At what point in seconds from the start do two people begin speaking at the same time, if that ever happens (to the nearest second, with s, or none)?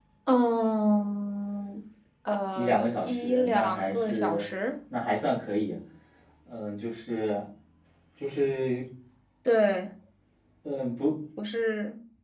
3 s